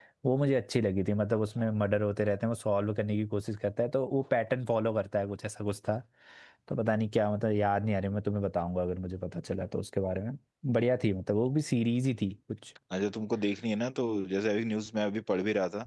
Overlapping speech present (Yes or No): No